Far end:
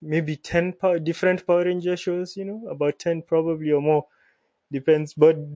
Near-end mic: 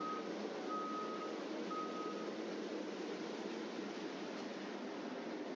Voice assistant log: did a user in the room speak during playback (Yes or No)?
No